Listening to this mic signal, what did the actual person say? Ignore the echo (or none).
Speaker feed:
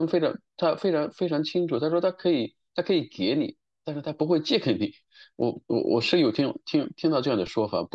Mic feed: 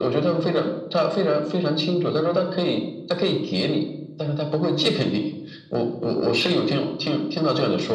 none